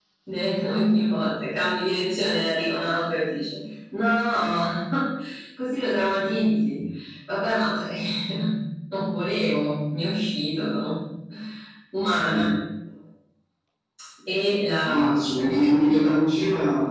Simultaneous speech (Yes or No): Yes